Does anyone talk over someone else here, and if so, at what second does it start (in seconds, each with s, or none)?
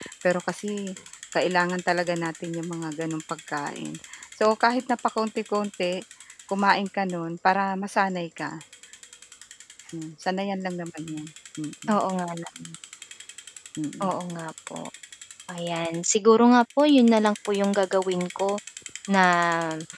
none